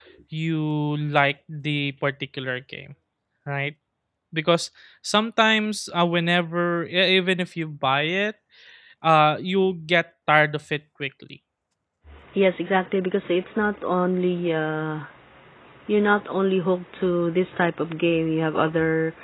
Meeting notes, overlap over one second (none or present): none